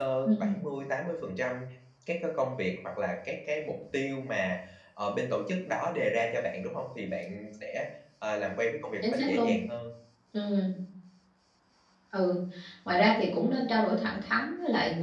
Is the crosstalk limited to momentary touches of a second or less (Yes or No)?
Yes